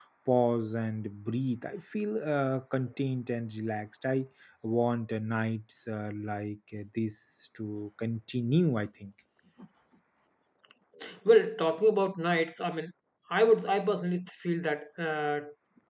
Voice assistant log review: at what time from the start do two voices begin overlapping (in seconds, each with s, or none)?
none